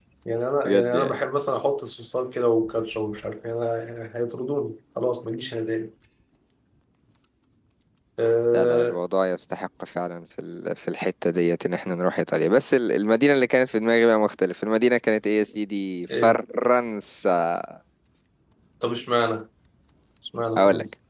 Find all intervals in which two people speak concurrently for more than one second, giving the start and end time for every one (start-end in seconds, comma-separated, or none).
none